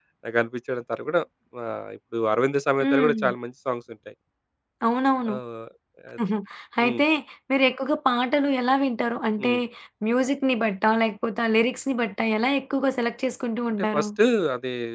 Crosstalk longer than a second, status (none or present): none